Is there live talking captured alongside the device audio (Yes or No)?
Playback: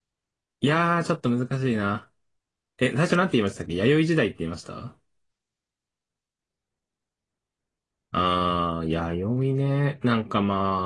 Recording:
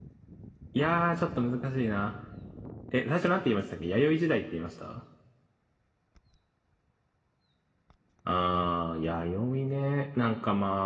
No